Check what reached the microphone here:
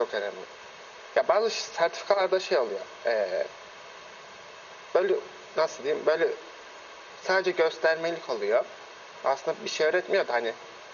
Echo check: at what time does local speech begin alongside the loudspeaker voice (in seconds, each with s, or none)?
none